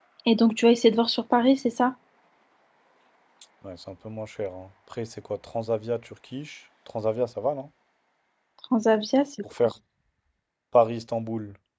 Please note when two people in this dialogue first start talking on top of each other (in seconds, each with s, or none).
none